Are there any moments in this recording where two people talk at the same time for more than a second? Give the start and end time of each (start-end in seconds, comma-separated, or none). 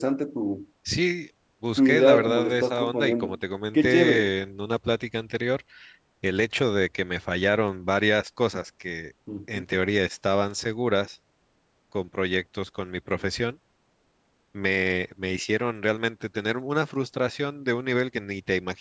1.8-3.3